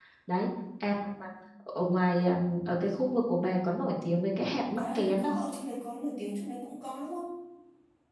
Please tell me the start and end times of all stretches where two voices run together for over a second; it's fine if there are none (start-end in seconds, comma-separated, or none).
none